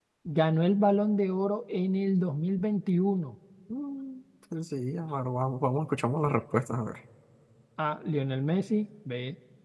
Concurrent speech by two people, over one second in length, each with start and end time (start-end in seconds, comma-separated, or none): none